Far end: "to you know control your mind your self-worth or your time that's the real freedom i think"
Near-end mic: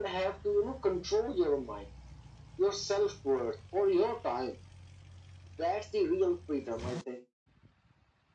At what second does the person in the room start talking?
none

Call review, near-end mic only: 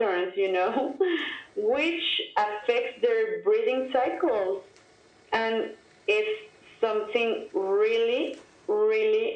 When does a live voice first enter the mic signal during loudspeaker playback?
none

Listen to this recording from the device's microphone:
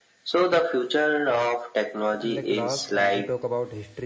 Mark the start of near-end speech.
2.0 s

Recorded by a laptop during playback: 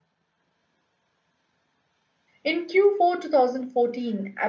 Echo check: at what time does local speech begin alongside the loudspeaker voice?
2.4 s

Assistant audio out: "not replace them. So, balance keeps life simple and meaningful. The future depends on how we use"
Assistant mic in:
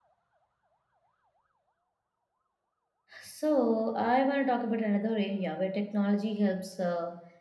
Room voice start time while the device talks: 3.2 s

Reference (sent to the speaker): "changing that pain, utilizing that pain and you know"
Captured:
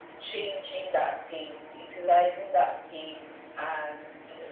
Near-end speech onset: none

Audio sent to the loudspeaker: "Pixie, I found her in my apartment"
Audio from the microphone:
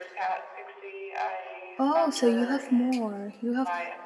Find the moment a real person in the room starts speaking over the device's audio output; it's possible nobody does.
1.8 s

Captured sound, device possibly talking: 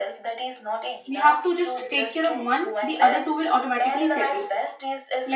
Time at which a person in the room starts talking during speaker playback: 1.1 s

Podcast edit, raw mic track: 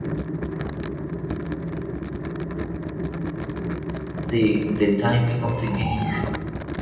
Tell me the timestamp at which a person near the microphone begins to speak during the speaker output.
4.3 s

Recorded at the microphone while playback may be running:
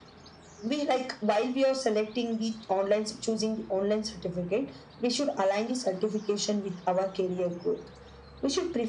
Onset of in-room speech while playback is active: none

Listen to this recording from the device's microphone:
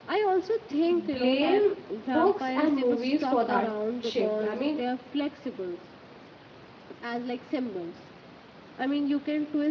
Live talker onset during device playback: 0.9 s

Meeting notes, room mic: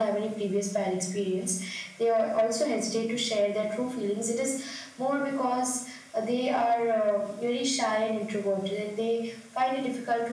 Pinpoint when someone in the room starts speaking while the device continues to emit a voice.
none

